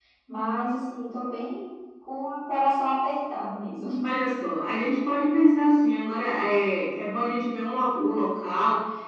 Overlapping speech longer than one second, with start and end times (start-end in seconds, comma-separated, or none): none